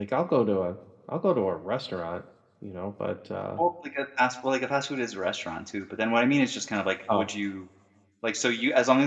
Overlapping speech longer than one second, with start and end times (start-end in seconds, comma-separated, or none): none